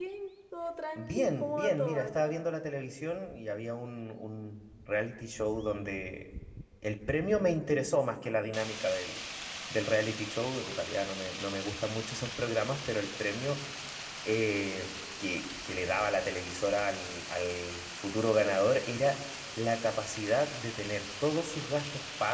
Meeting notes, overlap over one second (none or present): present